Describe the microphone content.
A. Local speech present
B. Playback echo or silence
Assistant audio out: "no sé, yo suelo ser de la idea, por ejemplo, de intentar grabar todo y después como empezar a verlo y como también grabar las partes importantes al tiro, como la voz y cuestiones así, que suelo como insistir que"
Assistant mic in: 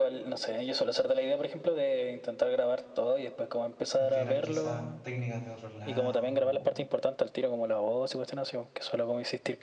A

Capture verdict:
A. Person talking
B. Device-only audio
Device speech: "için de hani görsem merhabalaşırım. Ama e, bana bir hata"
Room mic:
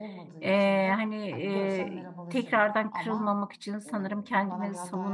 A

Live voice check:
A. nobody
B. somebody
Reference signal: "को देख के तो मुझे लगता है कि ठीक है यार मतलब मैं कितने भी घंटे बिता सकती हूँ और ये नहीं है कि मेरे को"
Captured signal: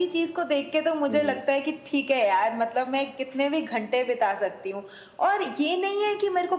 B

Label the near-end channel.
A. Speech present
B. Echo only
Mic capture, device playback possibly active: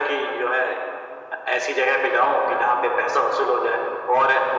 B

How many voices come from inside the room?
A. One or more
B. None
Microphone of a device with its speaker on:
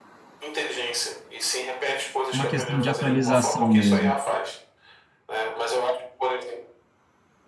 A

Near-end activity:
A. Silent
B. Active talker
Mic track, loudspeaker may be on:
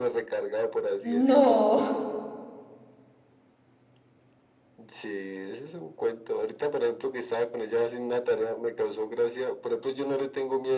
B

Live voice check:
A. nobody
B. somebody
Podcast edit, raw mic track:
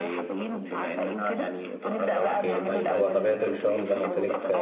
B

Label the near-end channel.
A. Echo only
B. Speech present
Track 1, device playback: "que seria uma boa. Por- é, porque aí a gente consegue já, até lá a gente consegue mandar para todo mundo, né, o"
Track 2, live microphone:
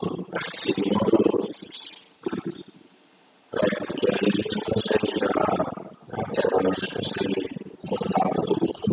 A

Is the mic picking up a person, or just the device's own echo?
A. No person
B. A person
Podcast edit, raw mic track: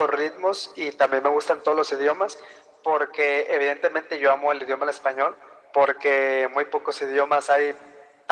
A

